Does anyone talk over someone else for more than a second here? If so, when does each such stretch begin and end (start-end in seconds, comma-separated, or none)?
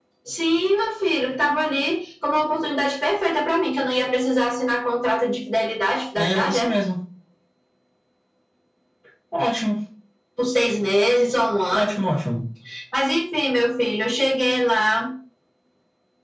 none